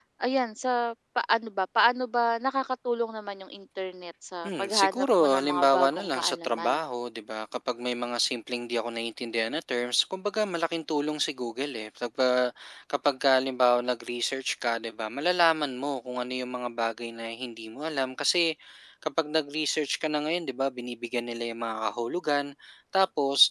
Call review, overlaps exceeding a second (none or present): present